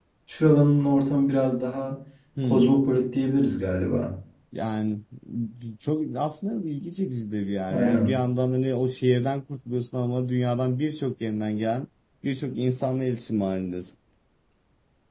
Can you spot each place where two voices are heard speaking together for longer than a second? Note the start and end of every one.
none

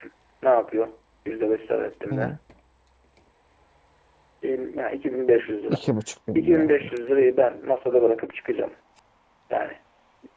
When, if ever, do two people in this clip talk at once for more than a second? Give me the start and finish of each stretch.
none

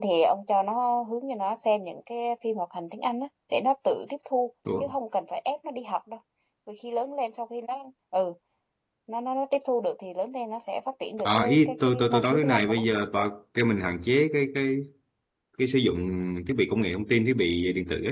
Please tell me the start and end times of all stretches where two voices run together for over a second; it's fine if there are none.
11.2-12.8

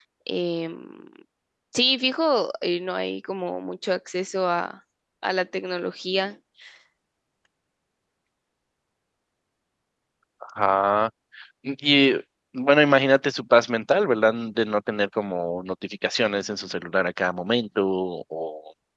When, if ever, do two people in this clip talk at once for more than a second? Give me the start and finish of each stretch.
none

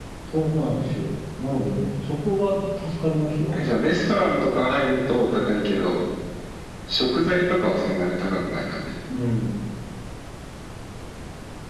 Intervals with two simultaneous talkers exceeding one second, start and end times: none

